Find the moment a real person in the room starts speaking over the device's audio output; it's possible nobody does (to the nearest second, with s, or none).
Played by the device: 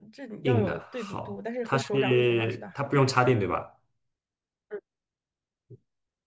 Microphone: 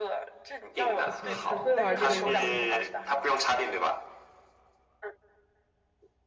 1 s